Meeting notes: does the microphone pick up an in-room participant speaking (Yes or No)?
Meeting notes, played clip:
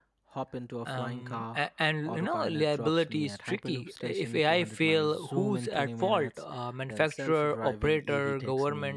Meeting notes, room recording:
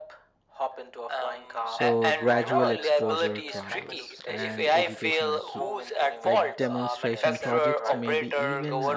Yes